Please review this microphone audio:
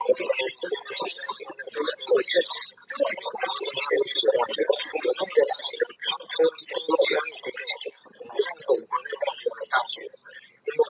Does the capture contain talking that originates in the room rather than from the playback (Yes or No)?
No